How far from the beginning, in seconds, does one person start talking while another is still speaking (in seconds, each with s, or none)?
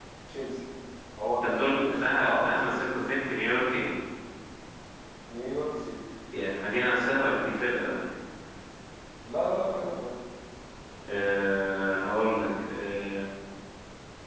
1.4 s